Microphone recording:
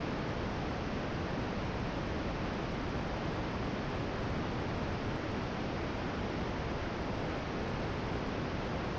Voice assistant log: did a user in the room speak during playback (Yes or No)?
No